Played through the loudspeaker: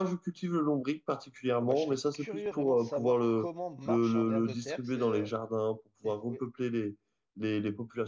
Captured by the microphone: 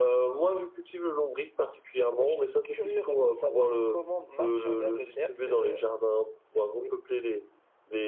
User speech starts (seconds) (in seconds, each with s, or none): none